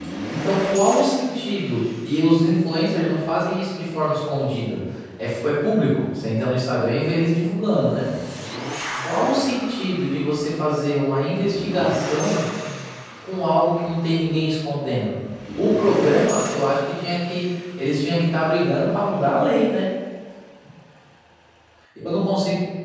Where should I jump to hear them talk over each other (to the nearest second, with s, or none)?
none